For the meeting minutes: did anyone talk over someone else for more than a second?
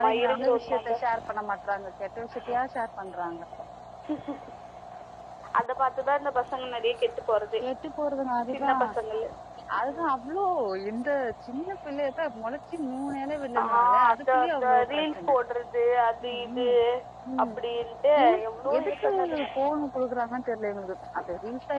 Yes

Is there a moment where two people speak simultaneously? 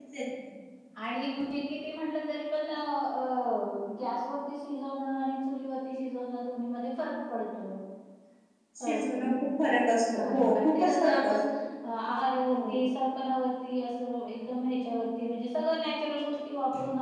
Yes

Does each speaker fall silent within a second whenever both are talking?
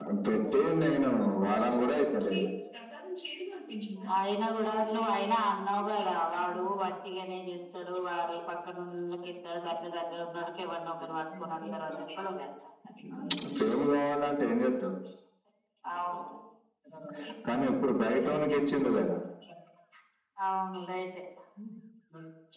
Yes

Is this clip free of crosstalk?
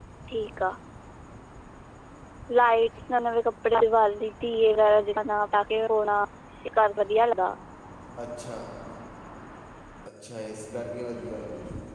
Yes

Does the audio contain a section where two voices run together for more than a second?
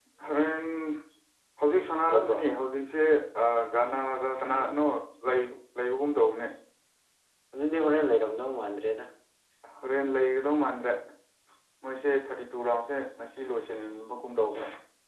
No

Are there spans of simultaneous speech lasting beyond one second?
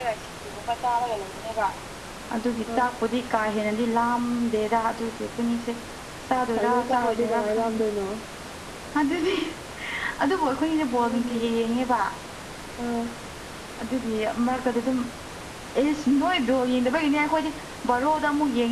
Yes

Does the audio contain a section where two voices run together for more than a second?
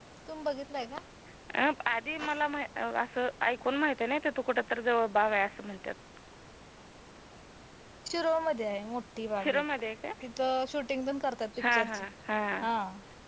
No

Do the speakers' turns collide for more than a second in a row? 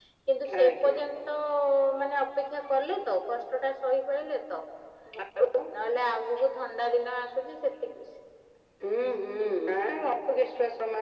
No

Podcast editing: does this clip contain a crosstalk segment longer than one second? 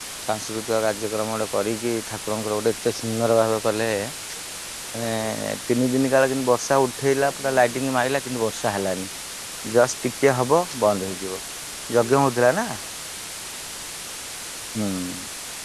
No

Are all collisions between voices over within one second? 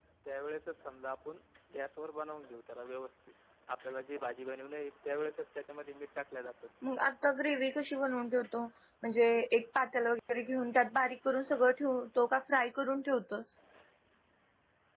Yes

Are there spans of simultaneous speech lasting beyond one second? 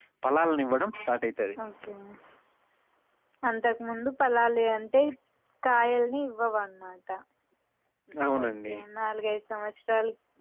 No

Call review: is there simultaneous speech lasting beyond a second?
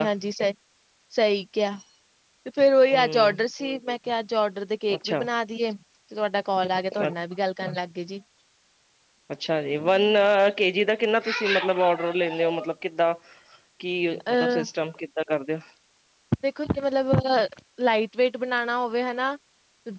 No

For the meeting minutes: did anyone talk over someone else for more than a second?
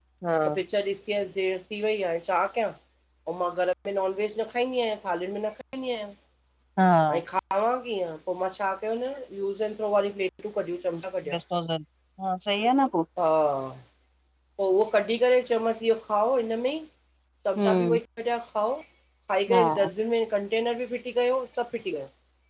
No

